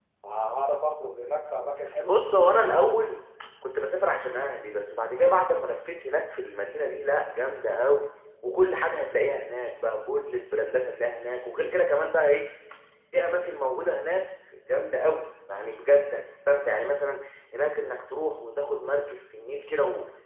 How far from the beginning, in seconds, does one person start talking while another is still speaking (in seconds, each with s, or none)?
none